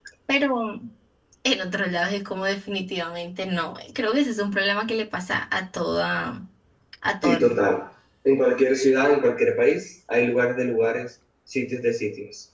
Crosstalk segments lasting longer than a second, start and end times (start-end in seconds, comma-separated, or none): none